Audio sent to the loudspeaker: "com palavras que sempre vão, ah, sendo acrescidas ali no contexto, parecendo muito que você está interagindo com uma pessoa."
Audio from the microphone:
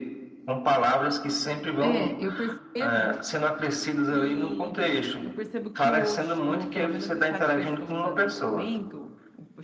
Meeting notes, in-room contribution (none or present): present